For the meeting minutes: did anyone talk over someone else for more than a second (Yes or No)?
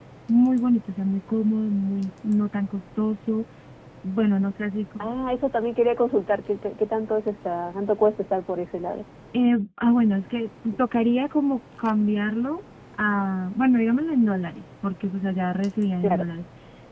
No